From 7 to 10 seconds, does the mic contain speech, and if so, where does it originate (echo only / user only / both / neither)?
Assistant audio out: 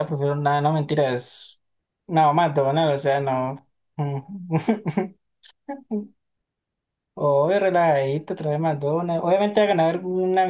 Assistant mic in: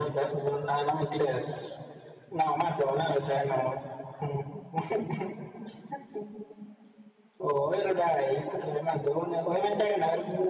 echo only